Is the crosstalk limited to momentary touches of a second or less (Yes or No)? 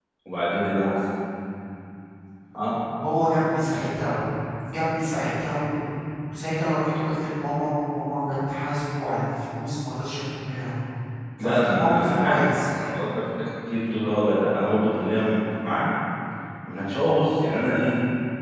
No